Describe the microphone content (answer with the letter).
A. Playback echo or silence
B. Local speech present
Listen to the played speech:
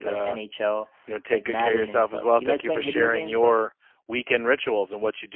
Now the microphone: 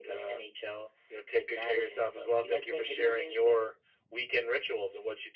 A